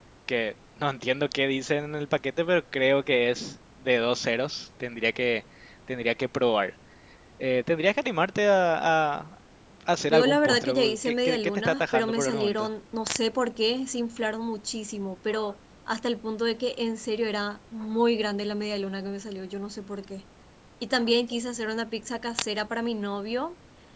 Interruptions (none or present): present